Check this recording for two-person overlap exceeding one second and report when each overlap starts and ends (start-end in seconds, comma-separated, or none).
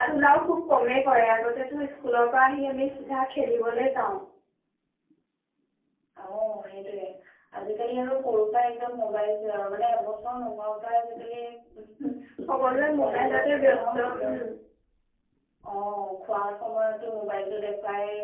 12.7-14.4